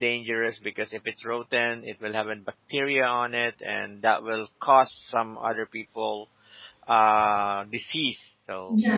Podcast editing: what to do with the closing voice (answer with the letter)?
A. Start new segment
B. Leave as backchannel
A